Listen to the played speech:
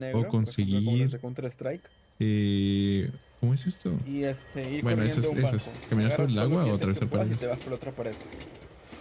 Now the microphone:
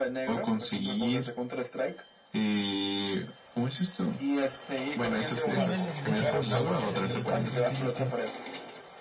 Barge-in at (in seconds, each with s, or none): 5.4 s